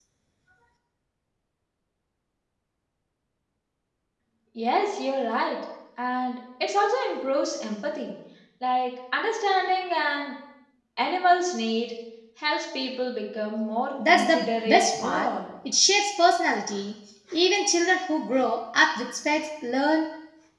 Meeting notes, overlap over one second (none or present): present